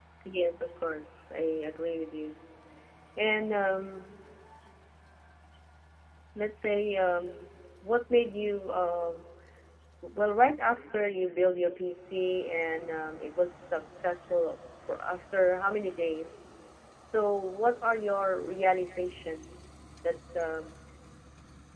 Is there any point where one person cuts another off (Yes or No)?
No